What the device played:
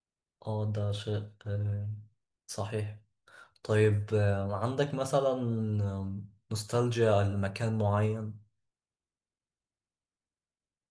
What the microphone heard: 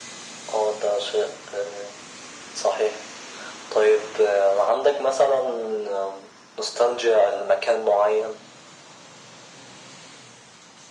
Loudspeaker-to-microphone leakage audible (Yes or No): Yes